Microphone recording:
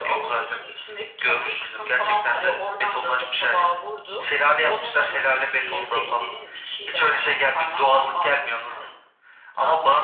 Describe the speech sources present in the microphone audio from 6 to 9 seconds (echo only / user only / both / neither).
echo only